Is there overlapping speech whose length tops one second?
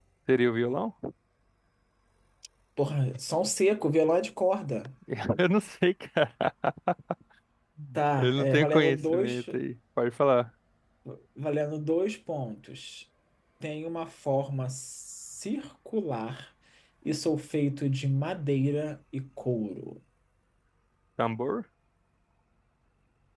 Yes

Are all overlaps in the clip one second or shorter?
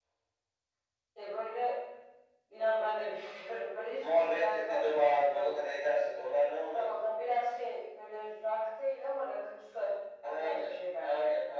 No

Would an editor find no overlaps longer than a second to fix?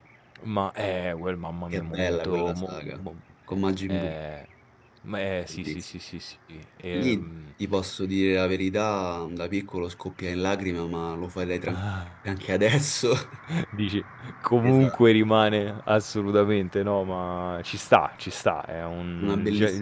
No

